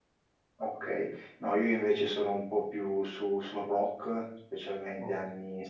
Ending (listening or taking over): listening